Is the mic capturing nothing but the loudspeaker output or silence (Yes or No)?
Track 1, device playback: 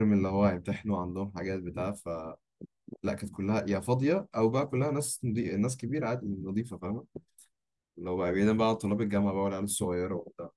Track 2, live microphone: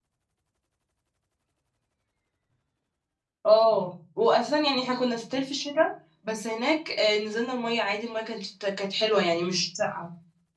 No